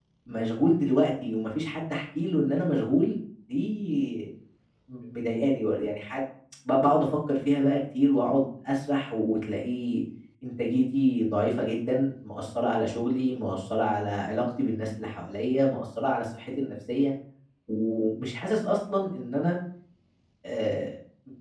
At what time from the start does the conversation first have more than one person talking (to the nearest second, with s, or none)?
none